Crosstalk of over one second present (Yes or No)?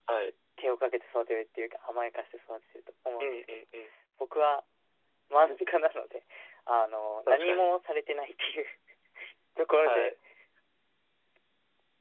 No